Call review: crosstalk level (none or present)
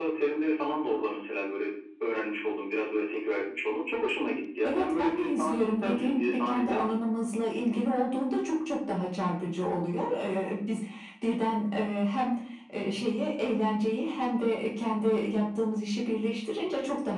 present